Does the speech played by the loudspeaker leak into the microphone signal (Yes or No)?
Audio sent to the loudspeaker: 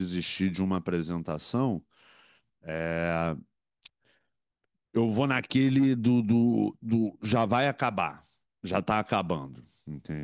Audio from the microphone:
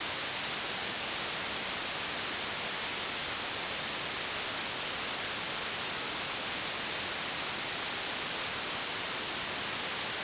No